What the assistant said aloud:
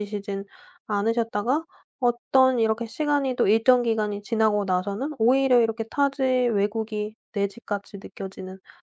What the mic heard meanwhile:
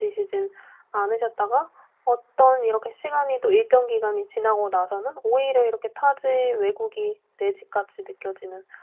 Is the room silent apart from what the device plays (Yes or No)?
Yes